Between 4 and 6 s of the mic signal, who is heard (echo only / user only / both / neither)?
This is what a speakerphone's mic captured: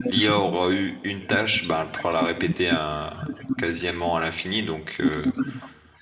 both